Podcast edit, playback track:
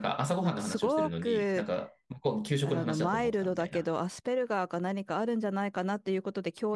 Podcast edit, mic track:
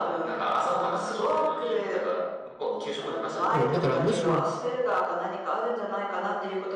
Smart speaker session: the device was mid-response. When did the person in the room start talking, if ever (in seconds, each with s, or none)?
3.5 s